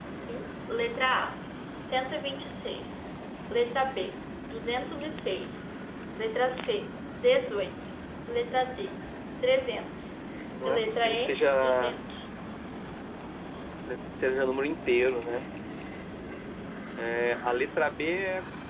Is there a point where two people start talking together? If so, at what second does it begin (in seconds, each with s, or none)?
10.7 s